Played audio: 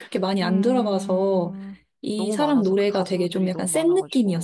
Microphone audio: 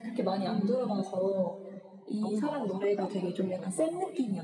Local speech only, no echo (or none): none